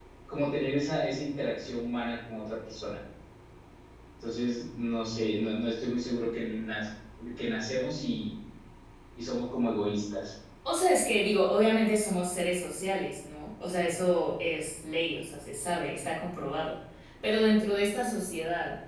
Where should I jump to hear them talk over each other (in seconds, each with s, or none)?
none